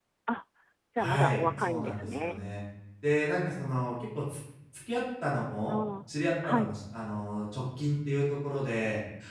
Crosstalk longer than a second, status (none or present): present